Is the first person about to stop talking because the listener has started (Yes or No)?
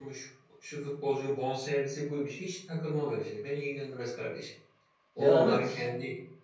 No